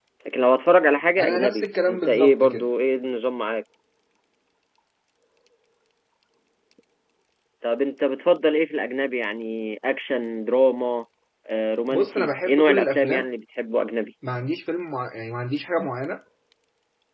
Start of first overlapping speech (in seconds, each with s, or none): 1.2 s